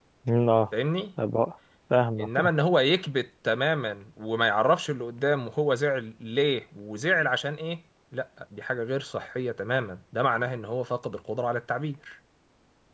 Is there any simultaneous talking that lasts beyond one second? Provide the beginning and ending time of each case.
none

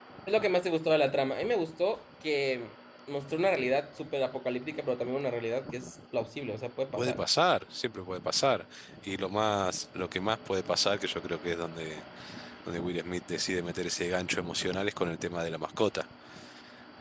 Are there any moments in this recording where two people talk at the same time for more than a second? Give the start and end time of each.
none

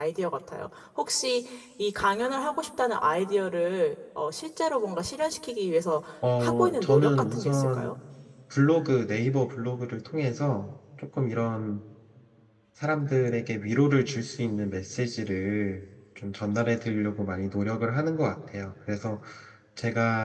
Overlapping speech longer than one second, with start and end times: 6.4-7.9

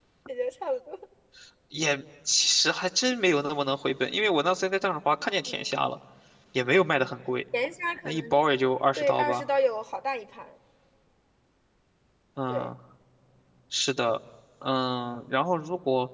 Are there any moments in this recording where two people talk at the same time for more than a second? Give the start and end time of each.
none

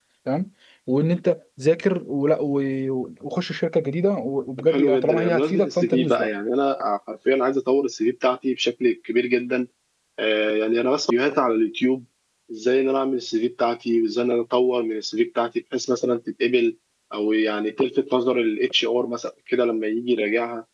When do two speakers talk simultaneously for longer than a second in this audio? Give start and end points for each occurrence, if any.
4.6-6.3

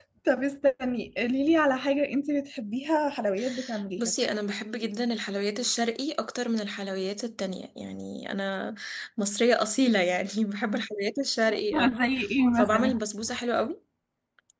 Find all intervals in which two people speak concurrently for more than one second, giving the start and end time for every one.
none

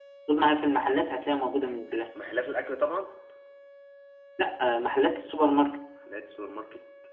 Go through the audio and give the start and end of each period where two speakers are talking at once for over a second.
none

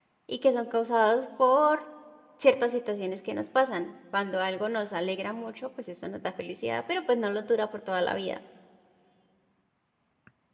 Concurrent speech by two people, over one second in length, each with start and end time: none

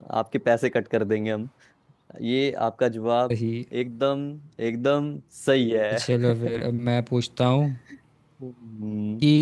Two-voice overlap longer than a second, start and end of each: none

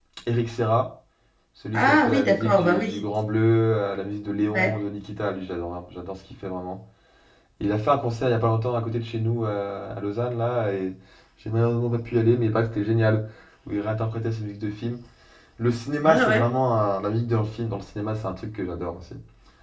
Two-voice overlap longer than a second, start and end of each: 1.7-3.0

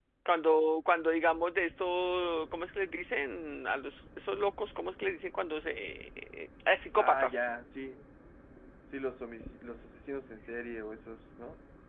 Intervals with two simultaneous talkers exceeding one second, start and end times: none

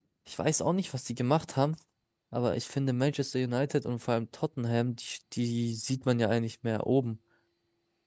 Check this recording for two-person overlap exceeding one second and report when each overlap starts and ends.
none

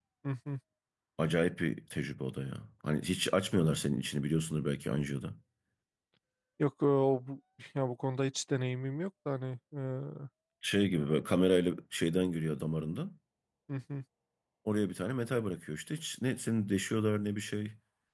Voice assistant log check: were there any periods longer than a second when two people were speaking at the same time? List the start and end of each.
none

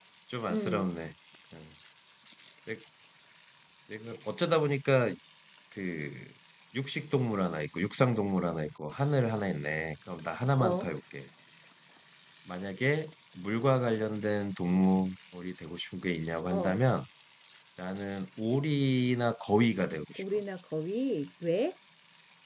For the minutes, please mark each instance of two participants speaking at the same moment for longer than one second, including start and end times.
none

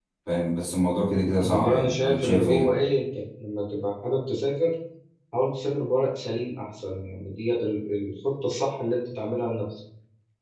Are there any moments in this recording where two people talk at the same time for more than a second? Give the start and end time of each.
1.4-2.7

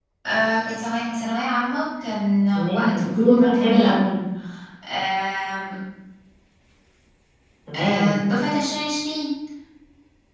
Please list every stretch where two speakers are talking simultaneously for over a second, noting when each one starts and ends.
2.5-4.0

